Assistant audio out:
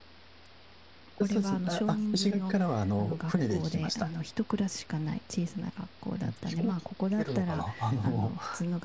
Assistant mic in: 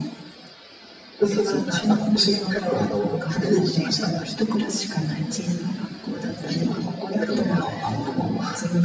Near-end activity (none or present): none